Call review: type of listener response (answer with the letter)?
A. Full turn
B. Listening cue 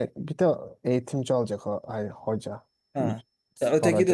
A